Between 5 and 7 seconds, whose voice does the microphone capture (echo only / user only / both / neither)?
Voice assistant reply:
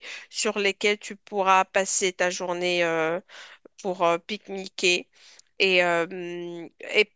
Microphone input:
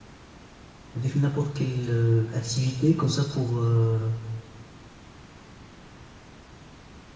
neither